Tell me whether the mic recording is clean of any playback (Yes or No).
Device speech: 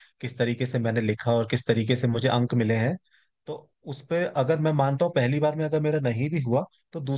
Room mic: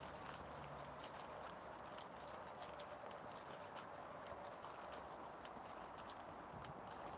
Yes